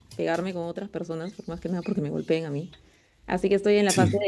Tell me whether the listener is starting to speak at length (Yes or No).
No